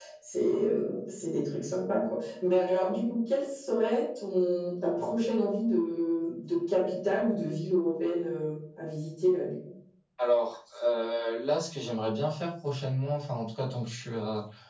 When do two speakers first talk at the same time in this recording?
none

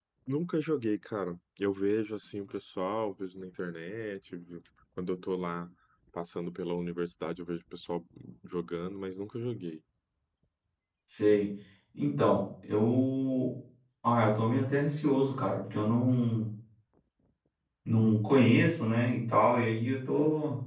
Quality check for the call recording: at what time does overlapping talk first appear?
none

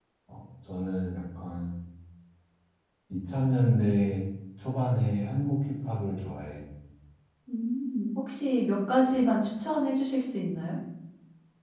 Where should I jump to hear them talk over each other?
none

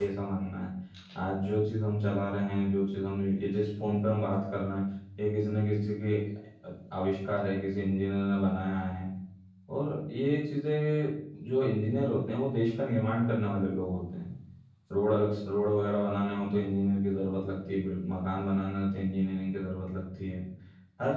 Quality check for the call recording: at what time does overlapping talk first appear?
none

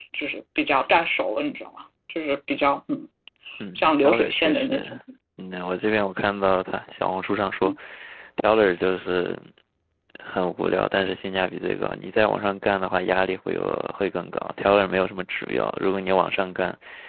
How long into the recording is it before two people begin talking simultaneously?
3.8 s

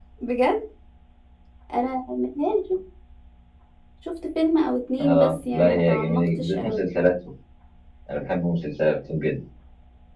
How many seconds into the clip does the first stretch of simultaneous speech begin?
5.0 s

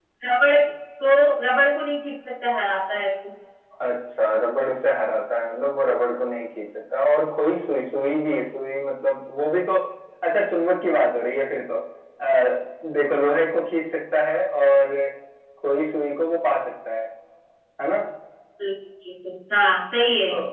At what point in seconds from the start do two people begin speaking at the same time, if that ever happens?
none

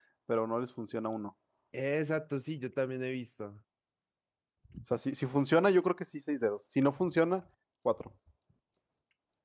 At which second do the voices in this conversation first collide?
none

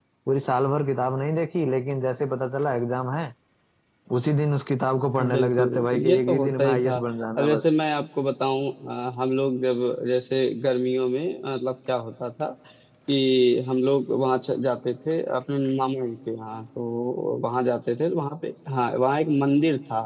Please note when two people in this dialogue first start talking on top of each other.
5.2 s

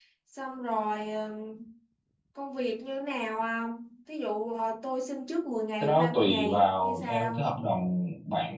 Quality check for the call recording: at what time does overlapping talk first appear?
5.8 s

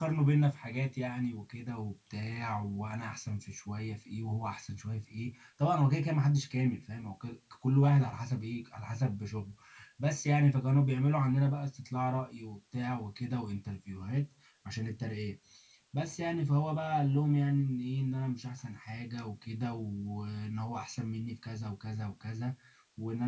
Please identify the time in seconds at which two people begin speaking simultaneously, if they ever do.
none

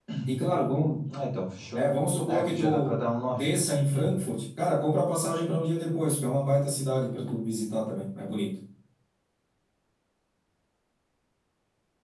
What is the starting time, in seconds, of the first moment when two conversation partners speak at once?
2.3 s

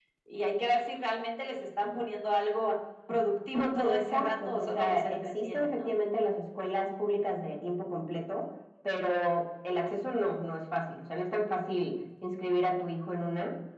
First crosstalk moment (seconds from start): 3.8 s

